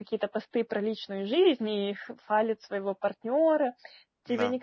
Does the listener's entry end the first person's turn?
No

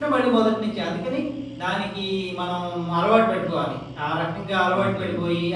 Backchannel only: Yes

